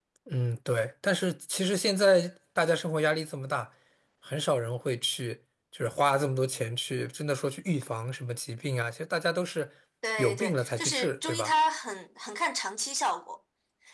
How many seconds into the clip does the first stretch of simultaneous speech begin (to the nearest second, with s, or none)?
10 s